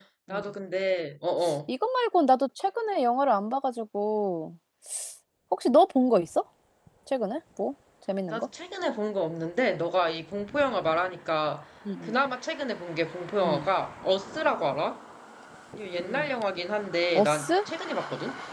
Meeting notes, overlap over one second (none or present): none